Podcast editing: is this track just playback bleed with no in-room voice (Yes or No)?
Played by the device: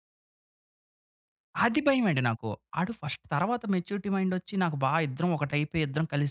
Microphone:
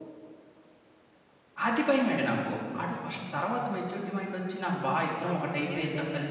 No